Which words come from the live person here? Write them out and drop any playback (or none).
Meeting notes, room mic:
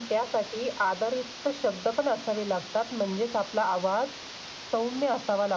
none